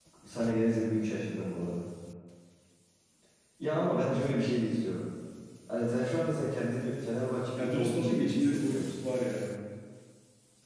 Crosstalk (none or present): present